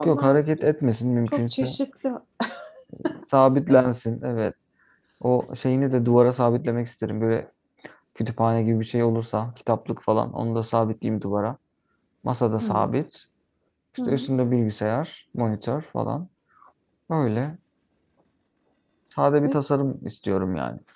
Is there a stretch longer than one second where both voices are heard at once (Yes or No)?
No